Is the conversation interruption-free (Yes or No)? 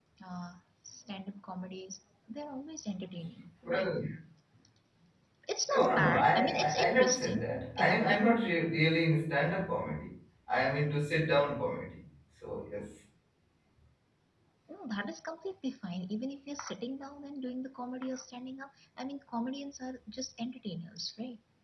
No